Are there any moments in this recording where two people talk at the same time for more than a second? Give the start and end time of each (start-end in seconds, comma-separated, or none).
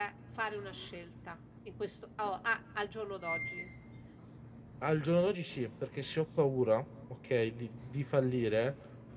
none